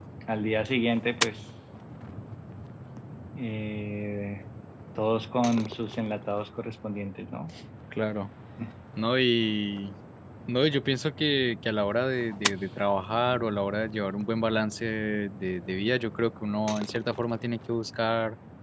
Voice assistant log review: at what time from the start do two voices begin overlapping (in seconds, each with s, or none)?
none